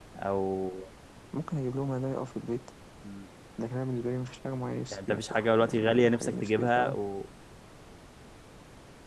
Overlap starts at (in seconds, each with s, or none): 4.9 s